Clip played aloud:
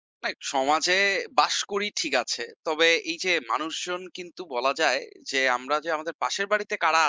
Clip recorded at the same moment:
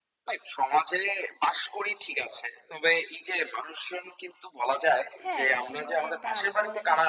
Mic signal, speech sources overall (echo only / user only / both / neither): both